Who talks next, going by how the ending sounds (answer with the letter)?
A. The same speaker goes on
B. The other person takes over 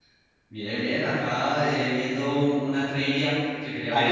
B